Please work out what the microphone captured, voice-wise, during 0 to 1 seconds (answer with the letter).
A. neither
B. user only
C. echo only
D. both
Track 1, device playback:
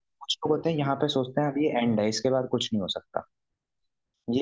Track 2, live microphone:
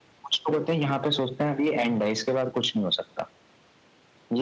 C